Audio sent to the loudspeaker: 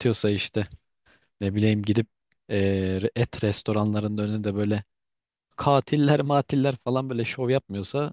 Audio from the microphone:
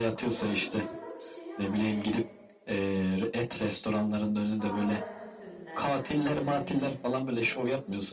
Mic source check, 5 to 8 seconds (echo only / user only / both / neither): both